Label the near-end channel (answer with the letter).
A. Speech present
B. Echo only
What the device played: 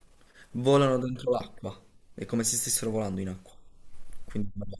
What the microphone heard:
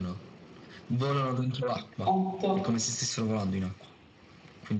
A